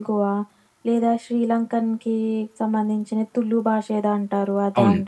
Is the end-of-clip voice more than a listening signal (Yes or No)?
Yes